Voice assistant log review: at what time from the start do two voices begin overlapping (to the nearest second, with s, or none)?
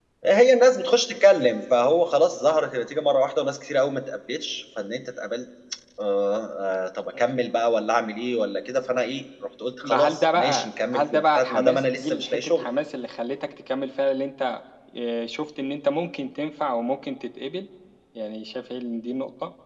10 s